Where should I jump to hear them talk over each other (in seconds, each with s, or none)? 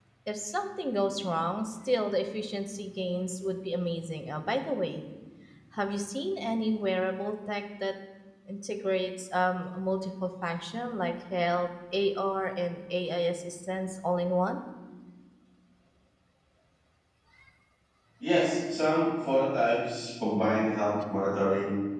none